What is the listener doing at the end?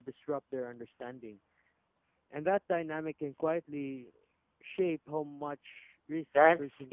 taking over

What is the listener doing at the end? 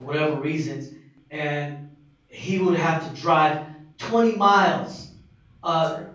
listening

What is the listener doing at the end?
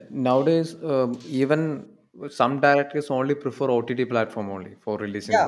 taking over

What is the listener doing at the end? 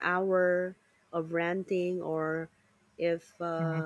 listening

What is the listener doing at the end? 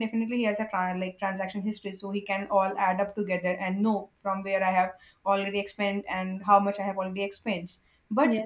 listening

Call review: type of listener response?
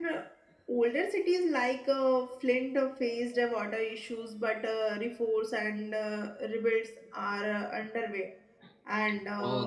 taking over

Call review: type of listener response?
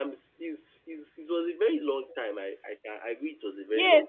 taking over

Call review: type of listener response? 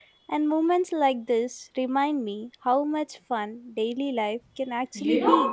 taking over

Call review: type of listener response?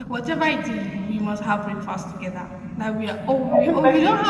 listening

